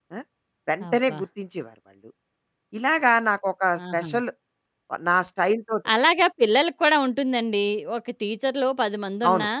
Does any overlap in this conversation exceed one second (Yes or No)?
No